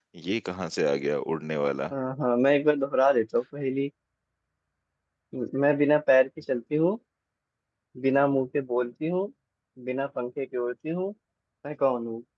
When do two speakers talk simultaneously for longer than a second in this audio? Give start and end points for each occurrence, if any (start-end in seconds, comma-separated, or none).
none